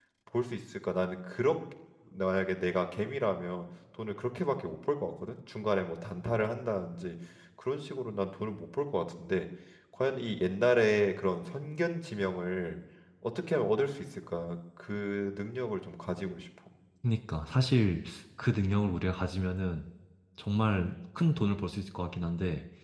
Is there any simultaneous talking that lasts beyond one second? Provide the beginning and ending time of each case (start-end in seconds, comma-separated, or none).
none